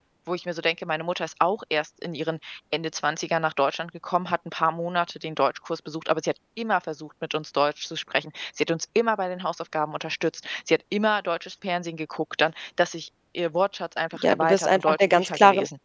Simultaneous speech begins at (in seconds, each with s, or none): 14.1 s